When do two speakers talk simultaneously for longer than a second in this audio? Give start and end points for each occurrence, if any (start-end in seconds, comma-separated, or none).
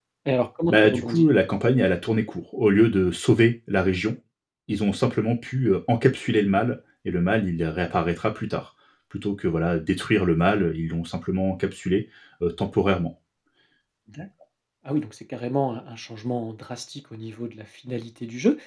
none